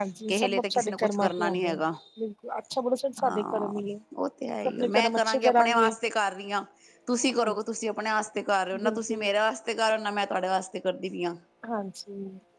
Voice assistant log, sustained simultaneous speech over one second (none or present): present